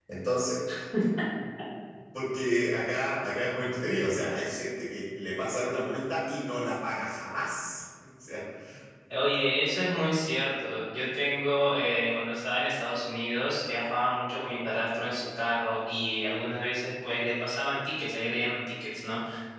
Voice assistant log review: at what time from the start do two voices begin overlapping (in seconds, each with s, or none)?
none